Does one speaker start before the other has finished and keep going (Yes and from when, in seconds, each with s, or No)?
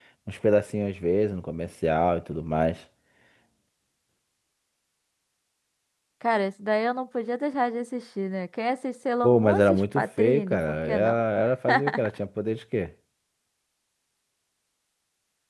Yes, from 9.2 s